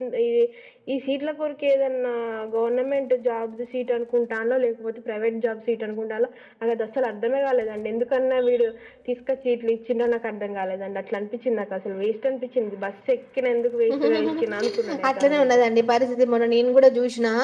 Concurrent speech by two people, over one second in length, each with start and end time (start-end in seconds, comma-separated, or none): 13.9-15.6